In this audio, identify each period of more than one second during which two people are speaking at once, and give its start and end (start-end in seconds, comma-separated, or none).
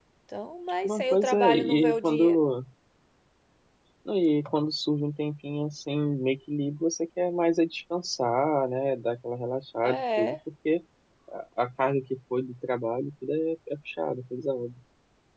0.8-2.4